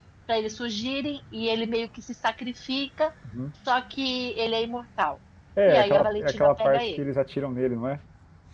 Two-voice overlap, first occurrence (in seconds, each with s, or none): 5.7 s